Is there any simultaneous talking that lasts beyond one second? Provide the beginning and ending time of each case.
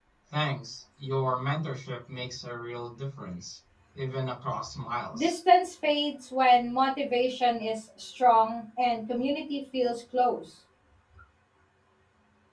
none

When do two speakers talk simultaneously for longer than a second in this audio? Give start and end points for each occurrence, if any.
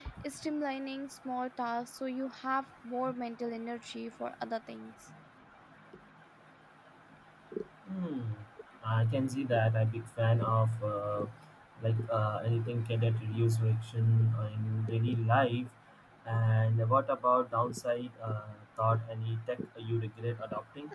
none

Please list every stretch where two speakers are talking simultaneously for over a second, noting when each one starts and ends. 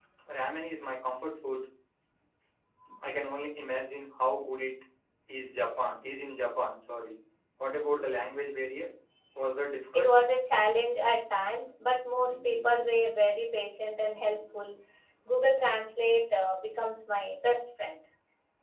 none

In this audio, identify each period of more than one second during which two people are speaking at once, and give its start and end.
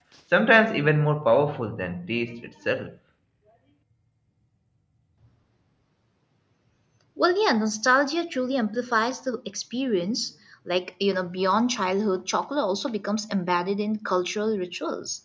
none

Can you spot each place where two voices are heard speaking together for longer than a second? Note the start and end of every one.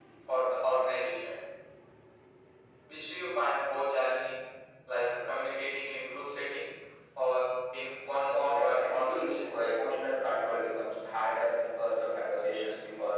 8.2-9.5

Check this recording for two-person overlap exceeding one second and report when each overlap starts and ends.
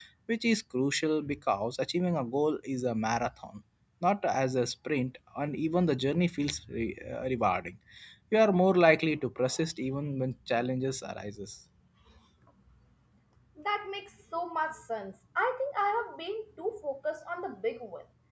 none

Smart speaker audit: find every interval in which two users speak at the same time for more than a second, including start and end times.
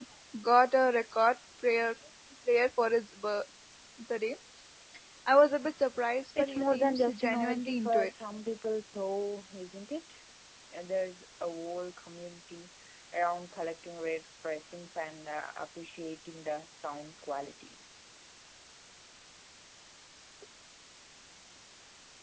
6.4-8.1

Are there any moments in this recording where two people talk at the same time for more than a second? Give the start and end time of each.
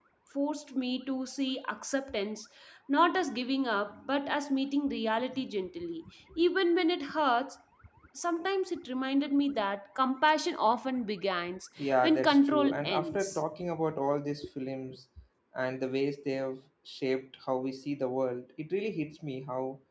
11.8-13.4

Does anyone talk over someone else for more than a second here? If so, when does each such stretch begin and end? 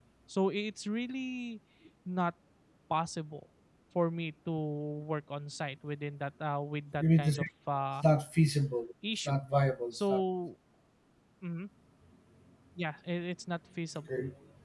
none

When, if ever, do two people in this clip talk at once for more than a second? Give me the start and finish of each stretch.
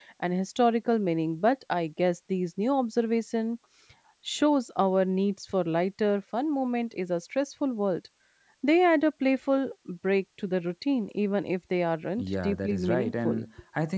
12.2-13.4

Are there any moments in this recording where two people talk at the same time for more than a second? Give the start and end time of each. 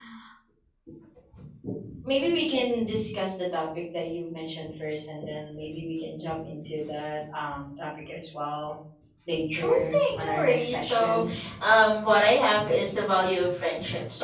9.6-11.2

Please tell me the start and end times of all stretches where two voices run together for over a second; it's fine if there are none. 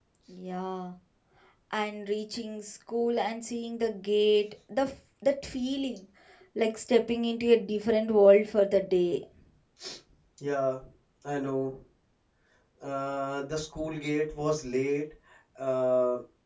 none

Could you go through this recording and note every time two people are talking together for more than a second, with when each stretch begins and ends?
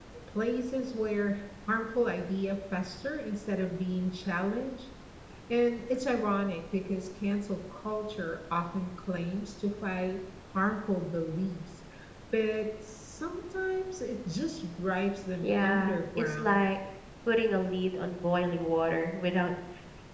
15.4-16.6

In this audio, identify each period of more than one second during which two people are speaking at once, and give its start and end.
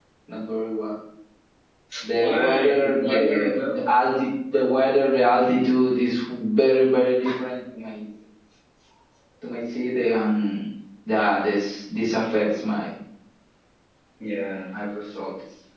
2.1-3.9

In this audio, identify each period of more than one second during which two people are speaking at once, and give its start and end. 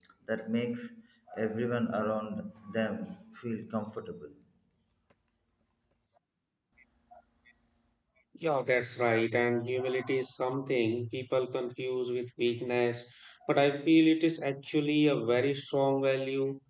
none

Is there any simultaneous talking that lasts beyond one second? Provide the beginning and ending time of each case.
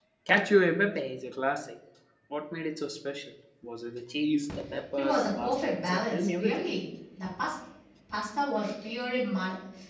5.0-6.6

